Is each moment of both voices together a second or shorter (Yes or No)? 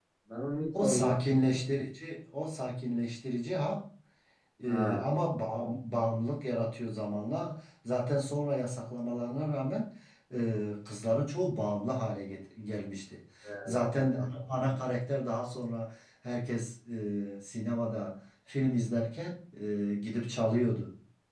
Yes